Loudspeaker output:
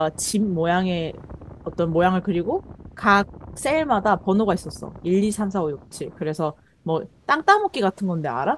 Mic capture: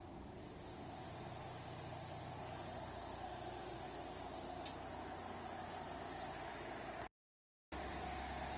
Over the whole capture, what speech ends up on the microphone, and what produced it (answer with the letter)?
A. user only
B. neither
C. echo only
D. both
B